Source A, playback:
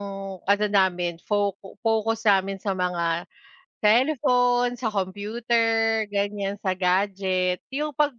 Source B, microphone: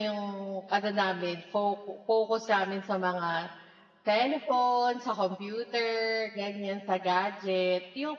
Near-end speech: none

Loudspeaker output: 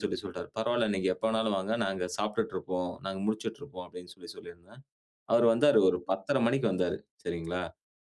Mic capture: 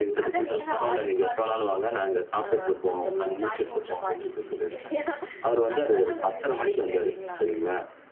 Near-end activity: present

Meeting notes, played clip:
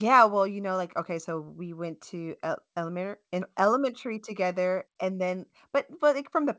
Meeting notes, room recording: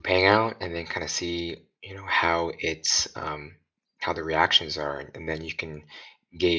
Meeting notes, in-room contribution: present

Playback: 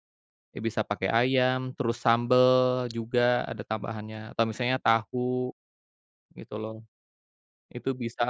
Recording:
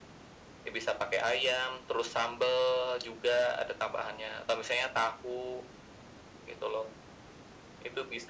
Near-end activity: none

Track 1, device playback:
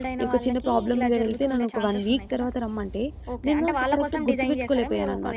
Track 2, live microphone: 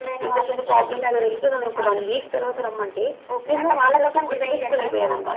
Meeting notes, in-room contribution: none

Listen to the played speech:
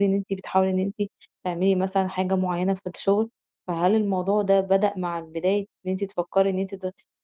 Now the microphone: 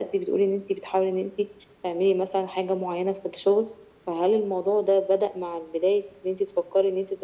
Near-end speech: none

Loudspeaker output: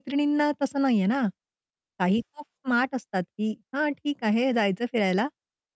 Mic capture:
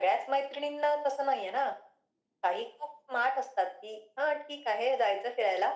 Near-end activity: none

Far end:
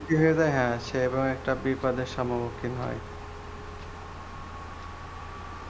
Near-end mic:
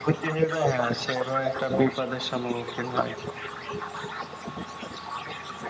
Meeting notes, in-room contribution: none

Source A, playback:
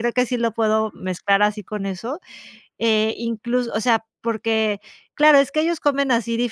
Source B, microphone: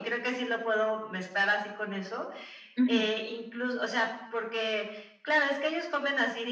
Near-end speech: present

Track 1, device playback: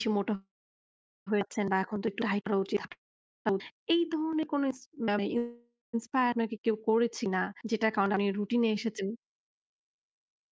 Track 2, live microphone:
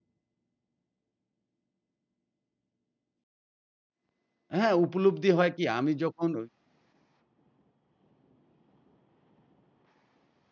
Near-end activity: present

